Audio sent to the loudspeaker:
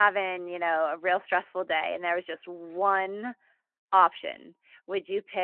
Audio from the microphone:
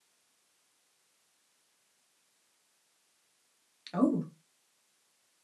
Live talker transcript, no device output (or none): Oh.